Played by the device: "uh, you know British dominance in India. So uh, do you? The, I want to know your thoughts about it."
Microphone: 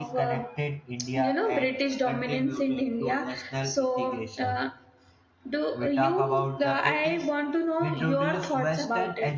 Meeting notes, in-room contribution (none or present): present